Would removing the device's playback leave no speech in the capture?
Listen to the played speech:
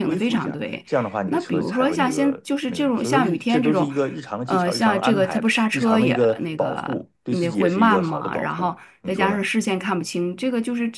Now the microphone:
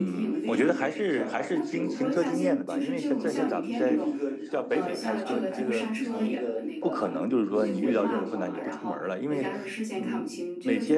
No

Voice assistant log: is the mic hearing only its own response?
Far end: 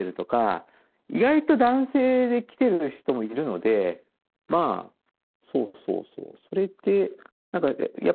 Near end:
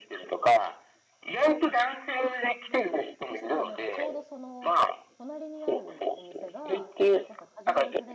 No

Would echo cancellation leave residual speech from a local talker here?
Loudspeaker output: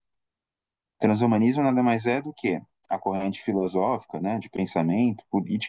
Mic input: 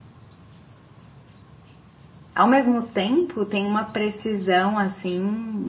Yes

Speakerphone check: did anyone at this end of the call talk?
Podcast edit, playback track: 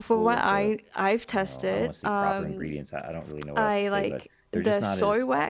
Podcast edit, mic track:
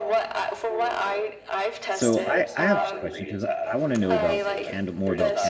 Yes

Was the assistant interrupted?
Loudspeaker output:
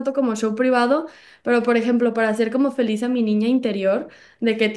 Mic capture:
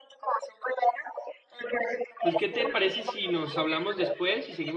Yes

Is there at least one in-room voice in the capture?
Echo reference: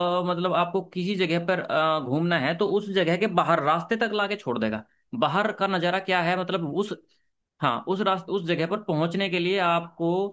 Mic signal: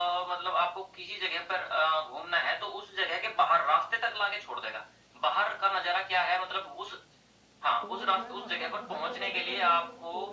Yes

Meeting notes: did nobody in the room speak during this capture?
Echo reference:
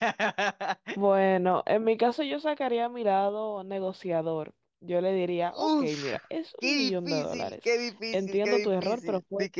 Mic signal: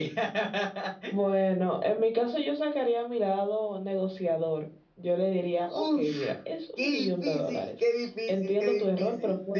Yes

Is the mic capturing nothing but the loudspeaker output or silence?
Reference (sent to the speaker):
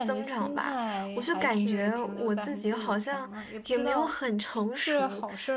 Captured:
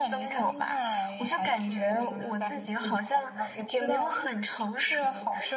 Yes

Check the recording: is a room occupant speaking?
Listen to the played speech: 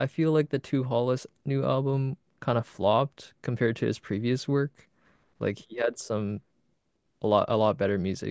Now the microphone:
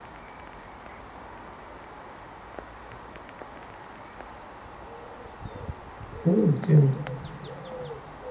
Yes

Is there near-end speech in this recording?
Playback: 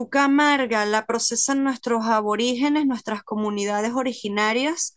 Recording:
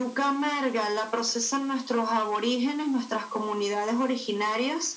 No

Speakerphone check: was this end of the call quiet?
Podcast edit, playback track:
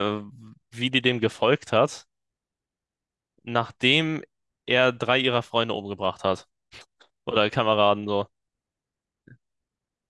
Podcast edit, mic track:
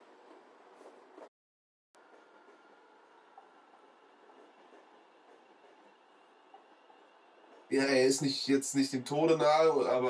No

